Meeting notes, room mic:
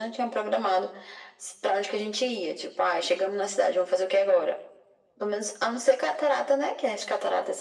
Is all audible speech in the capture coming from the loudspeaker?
Yes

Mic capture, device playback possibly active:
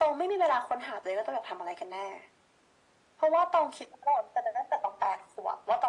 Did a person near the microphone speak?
No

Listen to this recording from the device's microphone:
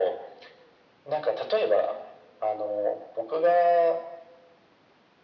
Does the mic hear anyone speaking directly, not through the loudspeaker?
No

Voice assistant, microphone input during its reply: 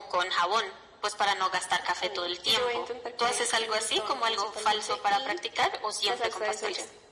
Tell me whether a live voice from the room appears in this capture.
No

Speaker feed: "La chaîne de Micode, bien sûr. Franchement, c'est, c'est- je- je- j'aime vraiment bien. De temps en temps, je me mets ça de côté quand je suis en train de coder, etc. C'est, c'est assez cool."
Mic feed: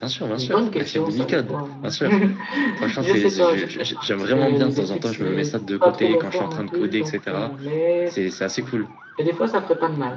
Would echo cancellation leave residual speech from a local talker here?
Yes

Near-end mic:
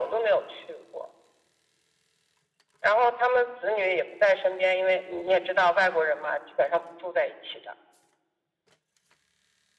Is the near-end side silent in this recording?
Yes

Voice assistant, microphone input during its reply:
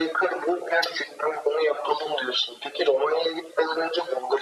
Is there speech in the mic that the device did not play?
No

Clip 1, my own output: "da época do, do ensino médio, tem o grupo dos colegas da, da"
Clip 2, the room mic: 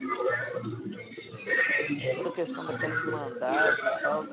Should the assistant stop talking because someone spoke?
Yes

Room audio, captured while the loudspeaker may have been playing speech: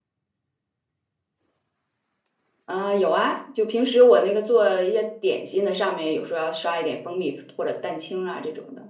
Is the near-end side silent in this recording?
No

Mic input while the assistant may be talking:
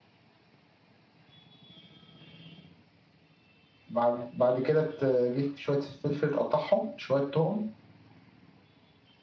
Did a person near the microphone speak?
Yes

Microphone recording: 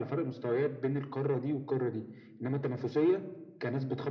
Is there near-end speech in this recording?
No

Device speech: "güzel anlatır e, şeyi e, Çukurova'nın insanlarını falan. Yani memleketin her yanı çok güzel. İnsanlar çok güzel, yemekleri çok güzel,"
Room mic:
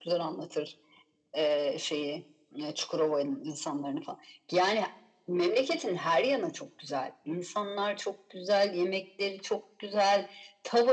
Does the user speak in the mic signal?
No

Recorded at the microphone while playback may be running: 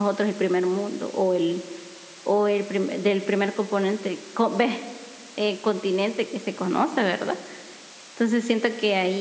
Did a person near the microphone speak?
Yes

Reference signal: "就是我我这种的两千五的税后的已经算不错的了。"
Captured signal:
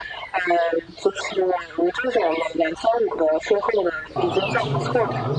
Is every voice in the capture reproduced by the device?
No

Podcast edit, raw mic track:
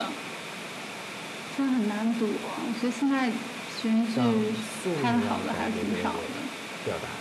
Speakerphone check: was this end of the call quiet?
No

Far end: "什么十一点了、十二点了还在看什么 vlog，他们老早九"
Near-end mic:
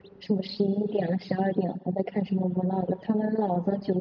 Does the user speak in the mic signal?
No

